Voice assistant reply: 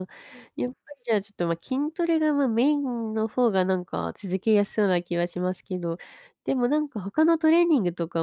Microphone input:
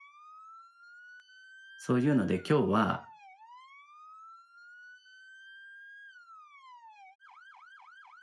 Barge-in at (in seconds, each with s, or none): 1.8 s